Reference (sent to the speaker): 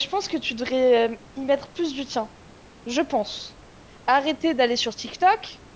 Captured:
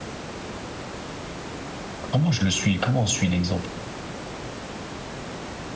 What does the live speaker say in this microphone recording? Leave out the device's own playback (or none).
comment je le suis? Comment on suit l'exemple?